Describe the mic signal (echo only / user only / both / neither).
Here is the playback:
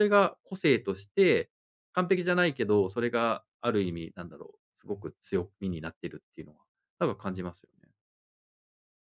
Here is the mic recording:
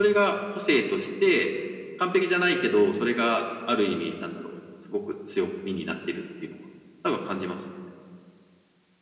echo only